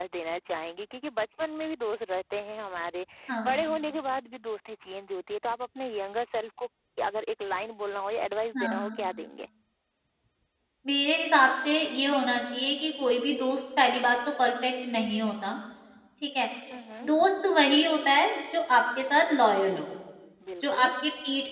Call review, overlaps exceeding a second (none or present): none